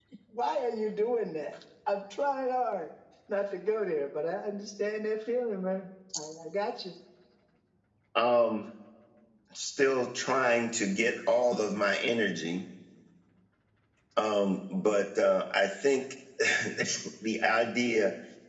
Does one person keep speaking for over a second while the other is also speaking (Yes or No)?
No